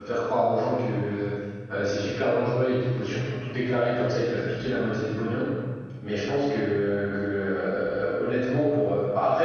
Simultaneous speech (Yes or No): No